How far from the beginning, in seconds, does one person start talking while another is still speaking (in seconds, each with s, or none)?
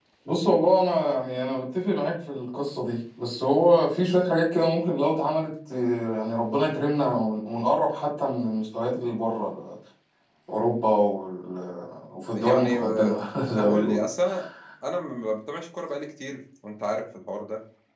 12.3 s